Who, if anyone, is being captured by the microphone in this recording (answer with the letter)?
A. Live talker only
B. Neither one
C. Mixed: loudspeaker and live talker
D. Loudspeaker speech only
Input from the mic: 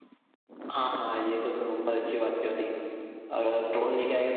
A